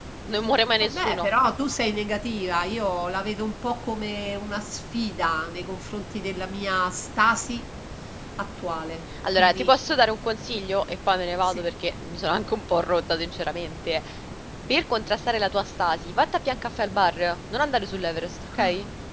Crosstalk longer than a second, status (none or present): none